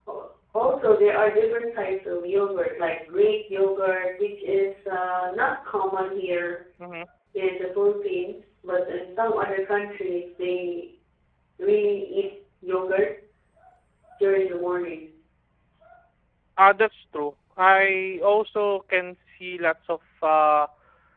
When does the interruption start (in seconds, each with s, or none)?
none